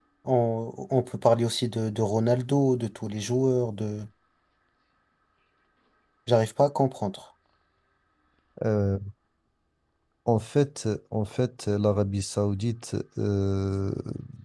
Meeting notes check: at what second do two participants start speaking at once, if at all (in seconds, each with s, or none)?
none